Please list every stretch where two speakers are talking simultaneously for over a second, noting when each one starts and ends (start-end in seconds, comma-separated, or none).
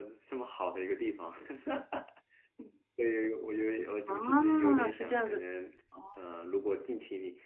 4.1-5.4